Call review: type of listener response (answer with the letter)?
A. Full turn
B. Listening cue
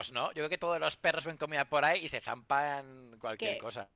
A